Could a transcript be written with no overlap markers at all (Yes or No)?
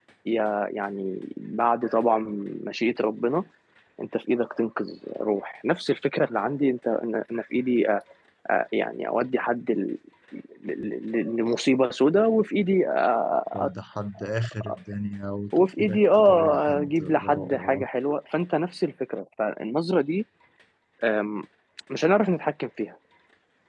No